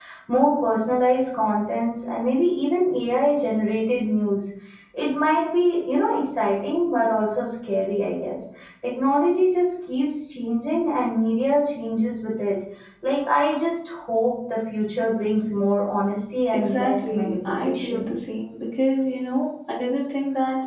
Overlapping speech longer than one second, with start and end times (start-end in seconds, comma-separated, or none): 16.5-18.0